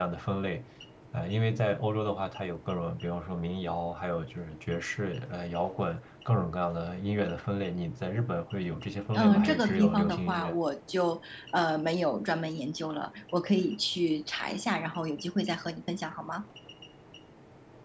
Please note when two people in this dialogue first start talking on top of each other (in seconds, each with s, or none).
9.1 s